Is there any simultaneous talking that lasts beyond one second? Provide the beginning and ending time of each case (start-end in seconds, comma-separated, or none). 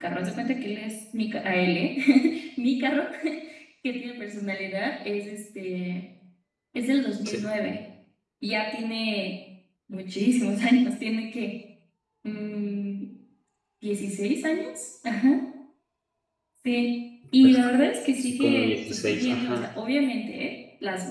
18.2-19.6